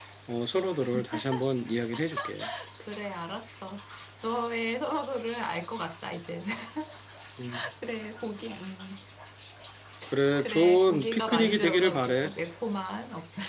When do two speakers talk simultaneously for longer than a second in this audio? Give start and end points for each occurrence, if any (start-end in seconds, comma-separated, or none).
10.4-12.2